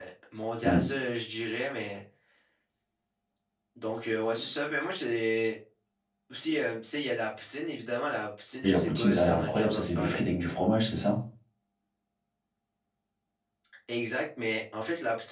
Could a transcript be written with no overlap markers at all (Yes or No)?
No